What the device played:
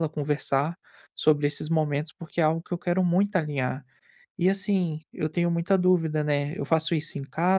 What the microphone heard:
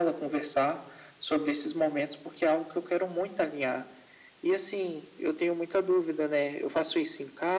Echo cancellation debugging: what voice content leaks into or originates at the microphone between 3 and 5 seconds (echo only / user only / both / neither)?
echo only